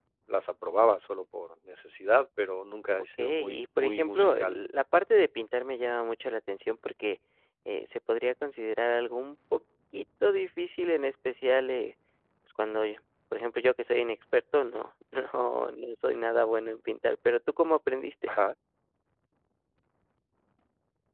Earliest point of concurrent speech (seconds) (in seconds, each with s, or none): 2.9 s